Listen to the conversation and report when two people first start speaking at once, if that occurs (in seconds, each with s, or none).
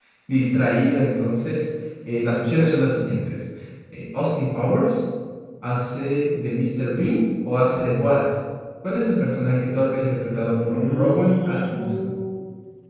10.6 s